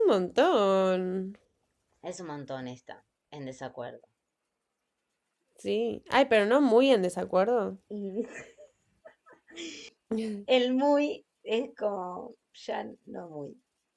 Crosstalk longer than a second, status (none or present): none